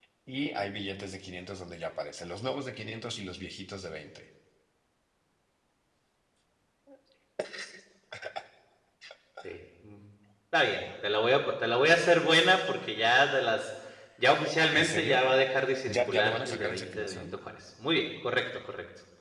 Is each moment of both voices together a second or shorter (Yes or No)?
No